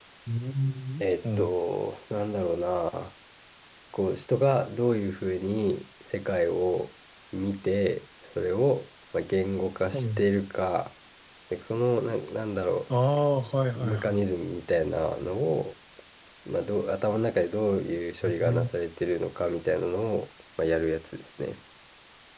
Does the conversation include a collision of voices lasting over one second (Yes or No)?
No